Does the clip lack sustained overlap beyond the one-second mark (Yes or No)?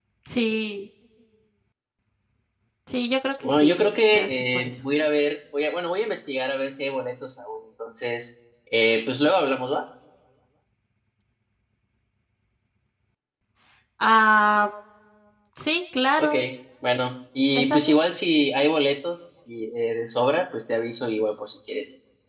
No